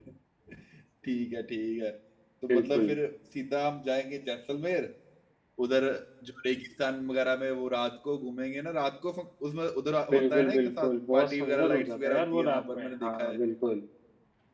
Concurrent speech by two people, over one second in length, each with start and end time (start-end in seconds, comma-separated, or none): 10.1-13.4